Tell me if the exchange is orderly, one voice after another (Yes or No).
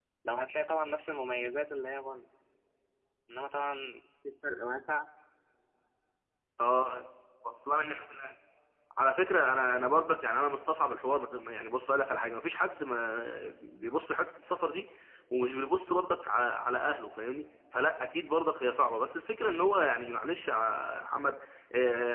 Yes